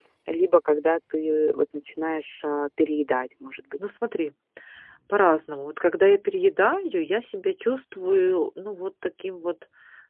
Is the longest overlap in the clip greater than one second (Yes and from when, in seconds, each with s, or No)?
No